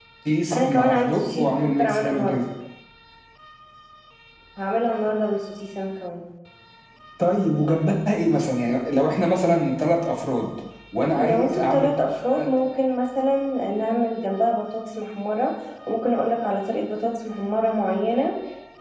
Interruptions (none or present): present